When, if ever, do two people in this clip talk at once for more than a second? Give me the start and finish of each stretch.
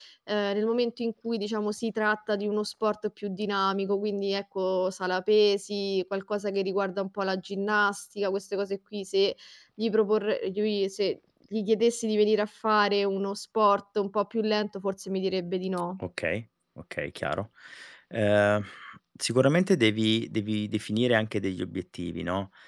none

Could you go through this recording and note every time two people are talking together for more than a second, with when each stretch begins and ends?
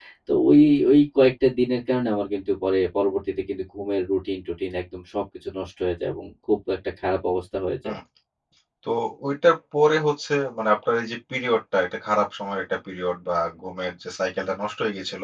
none

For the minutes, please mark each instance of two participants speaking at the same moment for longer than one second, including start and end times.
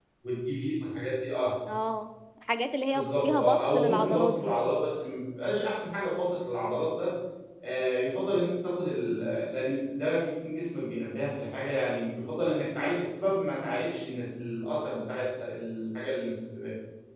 2.9-4.5

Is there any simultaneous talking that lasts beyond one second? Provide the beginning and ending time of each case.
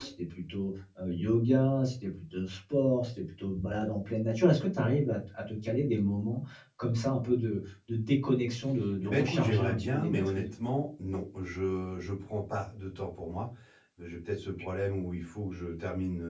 9.0-10.4

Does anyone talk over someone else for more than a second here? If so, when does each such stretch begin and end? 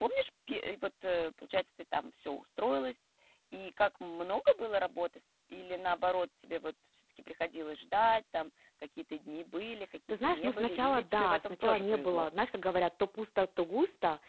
10.2-12.3

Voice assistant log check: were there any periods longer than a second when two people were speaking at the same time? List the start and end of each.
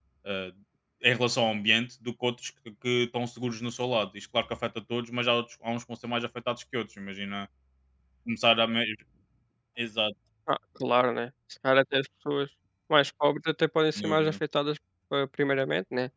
none

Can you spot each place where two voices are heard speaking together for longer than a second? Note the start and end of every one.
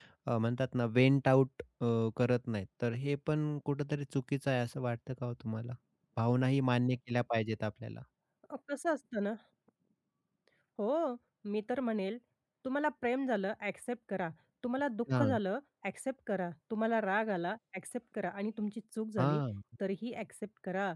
none

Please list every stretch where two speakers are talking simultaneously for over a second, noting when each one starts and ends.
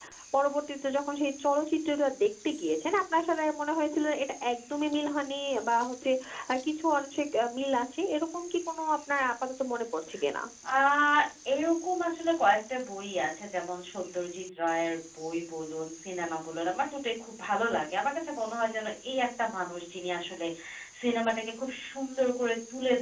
none

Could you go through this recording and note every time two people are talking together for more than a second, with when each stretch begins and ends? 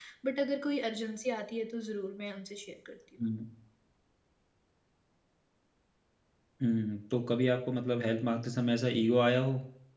none

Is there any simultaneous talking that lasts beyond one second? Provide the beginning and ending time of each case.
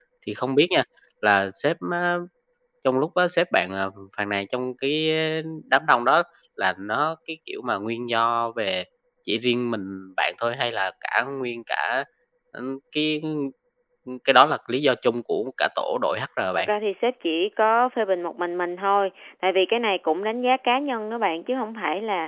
none

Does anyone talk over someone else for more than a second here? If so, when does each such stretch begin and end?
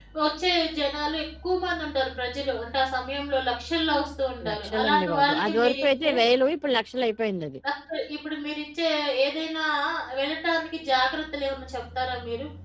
4.5-6.1

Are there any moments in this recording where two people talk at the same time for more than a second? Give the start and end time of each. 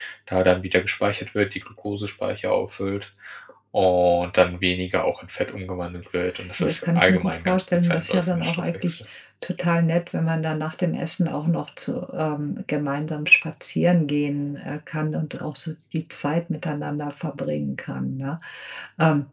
6.6-9.0

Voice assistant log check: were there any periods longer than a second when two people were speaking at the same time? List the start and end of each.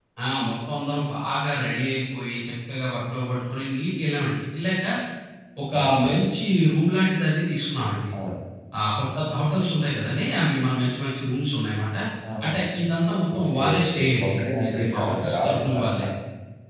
13.3-16.0

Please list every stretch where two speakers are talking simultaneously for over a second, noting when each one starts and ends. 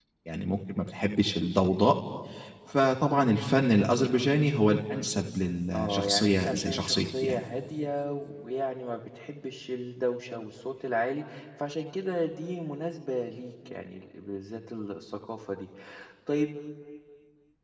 5.7-7.4

